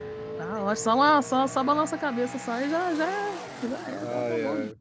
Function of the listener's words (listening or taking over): taking over